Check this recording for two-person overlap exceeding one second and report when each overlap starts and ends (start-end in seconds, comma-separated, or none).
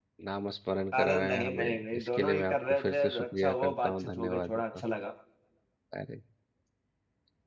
0.9-4.8